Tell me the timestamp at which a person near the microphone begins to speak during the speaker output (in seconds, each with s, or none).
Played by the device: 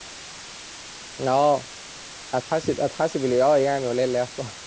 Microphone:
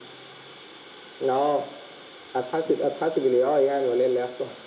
none